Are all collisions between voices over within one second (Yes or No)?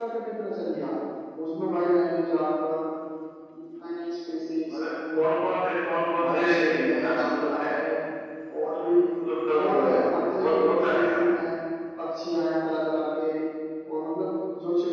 No